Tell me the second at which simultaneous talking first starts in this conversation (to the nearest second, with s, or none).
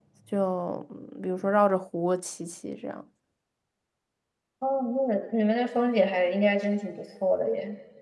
none